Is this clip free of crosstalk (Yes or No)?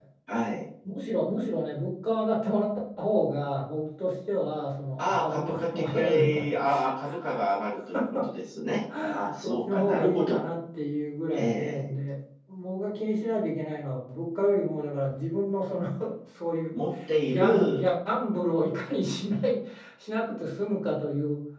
No